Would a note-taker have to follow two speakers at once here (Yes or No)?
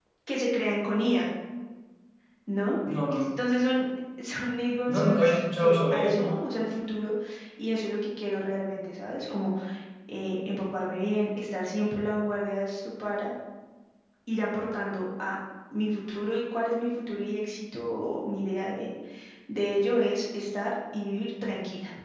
Yes